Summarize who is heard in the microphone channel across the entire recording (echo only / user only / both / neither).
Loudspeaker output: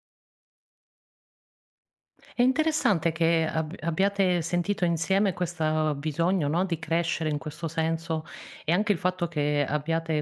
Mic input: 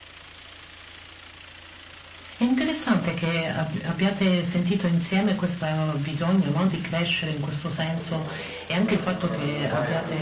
both